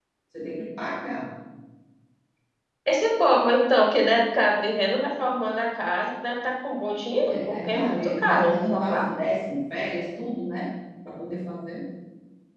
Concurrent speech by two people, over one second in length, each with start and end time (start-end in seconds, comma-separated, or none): 7.3-9.1